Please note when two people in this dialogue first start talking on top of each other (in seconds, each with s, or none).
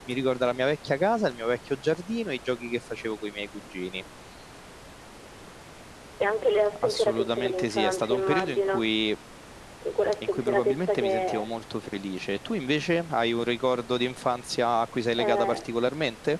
6.8 s